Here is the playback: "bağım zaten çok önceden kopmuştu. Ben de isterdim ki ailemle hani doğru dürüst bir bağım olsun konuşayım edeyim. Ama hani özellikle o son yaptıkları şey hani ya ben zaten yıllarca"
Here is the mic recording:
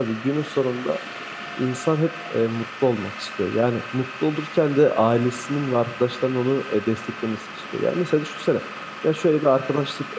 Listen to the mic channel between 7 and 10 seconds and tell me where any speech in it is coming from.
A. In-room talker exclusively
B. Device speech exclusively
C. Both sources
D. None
A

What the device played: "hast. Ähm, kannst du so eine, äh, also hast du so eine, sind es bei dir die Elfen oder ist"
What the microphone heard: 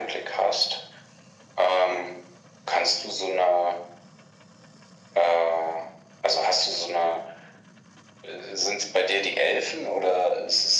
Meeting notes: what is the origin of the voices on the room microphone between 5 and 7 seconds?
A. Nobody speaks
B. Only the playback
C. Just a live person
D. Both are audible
B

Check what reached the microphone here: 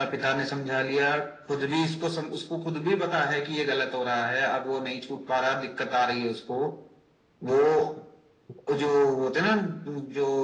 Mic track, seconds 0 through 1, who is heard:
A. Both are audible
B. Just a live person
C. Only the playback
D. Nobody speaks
C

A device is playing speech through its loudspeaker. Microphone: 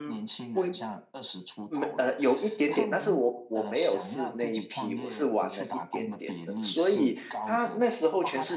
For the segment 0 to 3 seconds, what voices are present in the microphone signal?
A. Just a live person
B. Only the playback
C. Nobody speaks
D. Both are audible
D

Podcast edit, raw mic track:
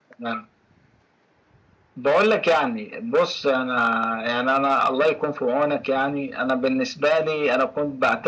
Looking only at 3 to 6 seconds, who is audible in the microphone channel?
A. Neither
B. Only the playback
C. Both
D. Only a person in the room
B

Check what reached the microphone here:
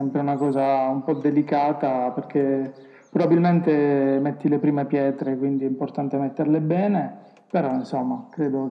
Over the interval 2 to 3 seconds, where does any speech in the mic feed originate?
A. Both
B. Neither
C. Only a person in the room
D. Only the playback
D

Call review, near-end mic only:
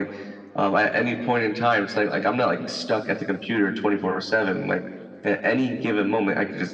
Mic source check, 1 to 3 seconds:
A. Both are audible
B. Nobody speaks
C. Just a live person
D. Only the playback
D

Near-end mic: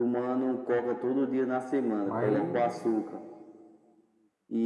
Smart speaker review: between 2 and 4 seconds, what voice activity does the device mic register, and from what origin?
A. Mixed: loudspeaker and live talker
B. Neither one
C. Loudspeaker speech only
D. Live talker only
A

